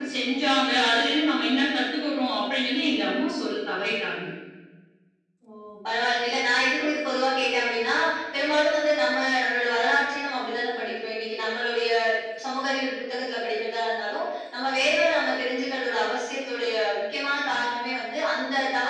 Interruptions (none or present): none